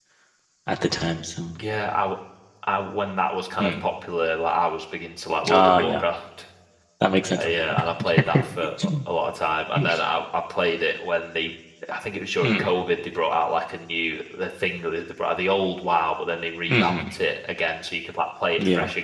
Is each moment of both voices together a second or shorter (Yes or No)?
Yes